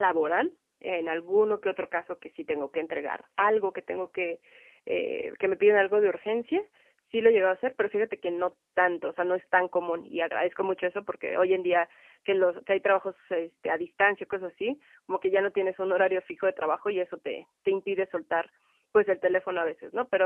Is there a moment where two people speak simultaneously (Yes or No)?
No